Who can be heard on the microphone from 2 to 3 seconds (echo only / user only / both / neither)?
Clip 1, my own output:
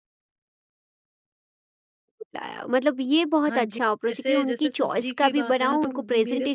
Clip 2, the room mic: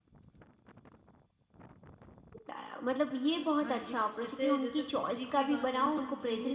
echo only